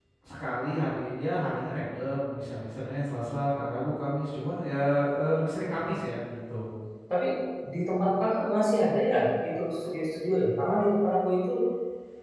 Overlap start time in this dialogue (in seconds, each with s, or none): none